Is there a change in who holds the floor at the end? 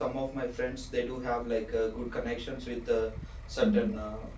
No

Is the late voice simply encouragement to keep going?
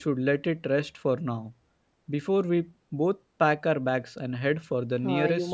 No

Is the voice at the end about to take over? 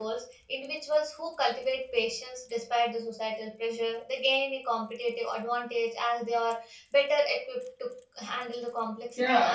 Yes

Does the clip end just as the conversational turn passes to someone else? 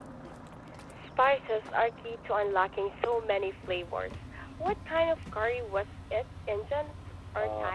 Yes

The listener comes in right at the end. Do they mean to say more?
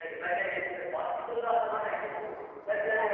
No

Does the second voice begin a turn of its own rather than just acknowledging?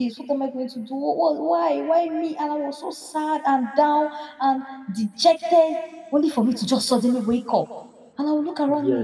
No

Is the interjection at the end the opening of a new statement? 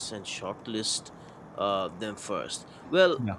No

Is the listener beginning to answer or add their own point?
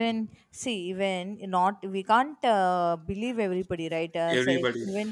No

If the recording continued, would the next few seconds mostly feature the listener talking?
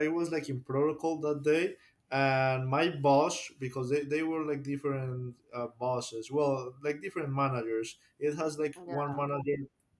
No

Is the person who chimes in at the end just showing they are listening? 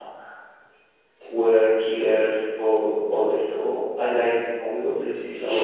No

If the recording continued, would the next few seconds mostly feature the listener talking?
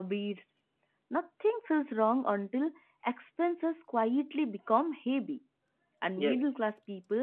No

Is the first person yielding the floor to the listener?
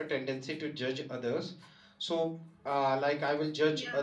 No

